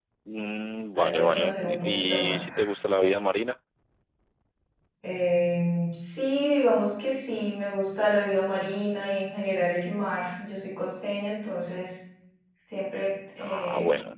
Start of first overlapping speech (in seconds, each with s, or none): 0.9 s